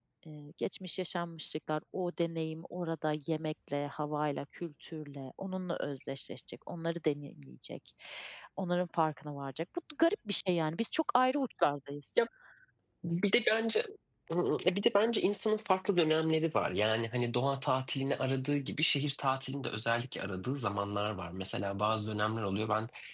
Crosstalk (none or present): none